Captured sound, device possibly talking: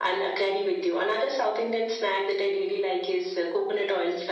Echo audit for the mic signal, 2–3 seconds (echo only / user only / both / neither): echo only